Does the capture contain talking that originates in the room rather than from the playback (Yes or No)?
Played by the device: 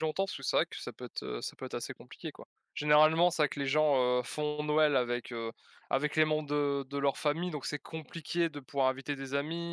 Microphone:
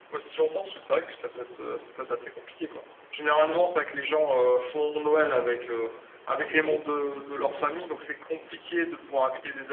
Yes